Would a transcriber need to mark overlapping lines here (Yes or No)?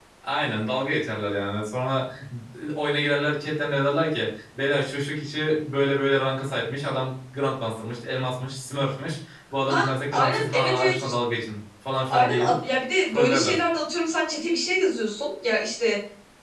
Yes